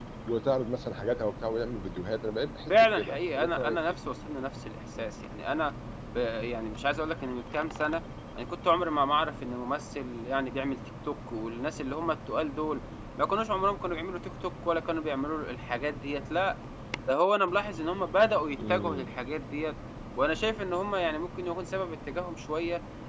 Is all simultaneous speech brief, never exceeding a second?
No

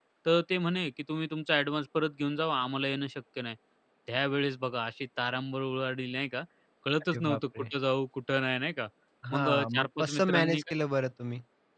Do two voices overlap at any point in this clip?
Yes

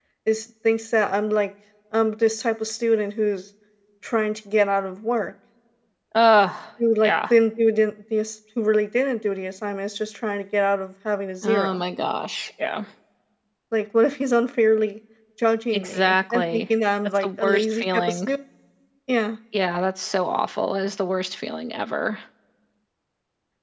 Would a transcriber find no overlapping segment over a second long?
No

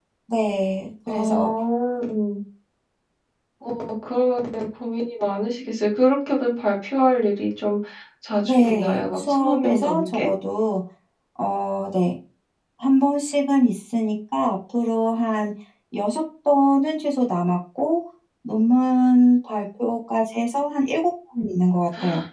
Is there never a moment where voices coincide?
No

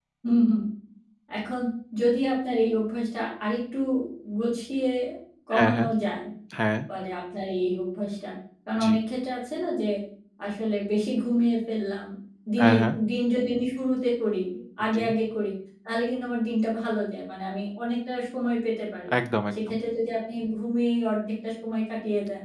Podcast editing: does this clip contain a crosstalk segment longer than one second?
No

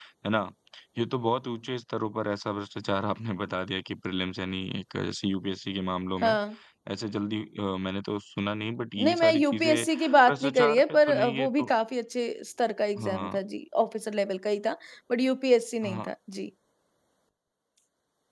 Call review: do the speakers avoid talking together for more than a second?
No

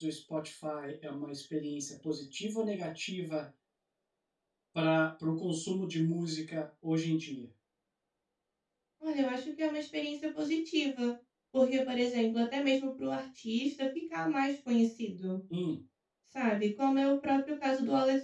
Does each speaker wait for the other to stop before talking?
Yes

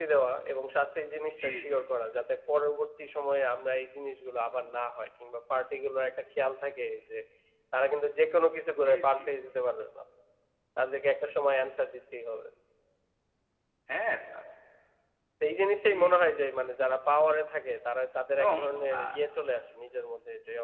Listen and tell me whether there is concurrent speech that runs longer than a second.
No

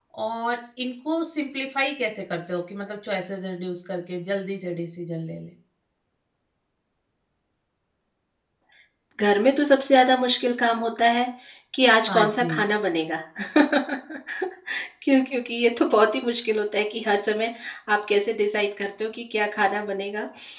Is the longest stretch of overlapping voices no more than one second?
Yes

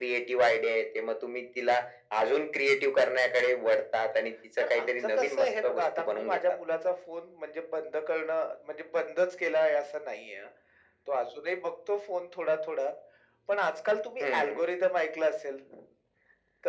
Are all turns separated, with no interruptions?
No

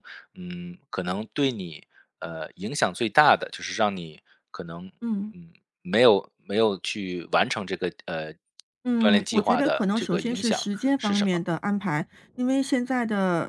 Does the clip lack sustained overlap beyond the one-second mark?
No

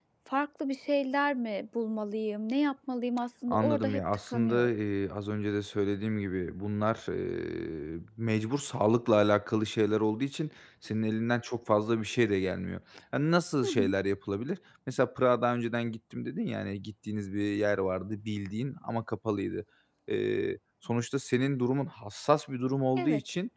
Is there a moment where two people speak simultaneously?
Yes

